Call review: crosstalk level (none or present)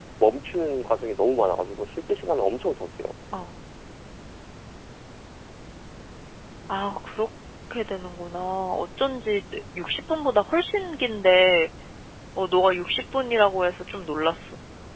none